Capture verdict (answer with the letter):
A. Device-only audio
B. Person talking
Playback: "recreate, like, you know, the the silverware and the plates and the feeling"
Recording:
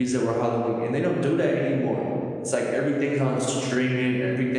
B